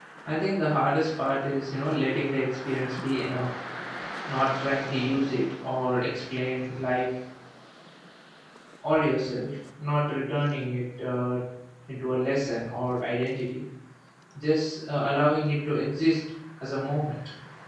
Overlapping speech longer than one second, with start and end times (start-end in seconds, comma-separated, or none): none